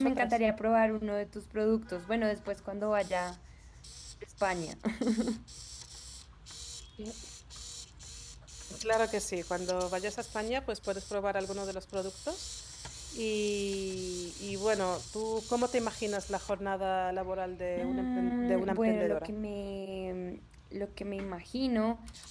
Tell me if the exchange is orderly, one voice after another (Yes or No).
No